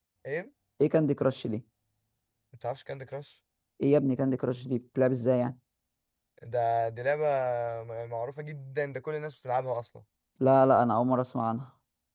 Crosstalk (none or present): none